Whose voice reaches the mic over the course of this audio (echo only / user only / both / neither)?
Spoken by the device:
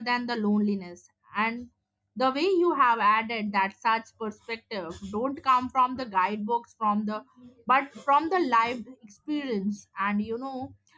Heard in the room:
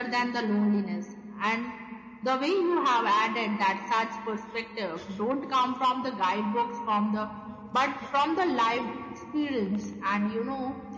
echo only